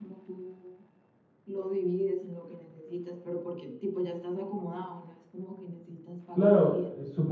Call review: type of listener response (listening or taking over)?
taking over